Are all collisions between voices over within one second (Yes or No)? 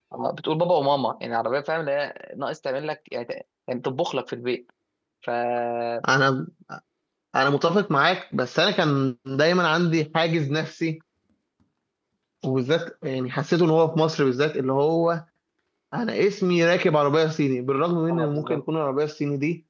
Yes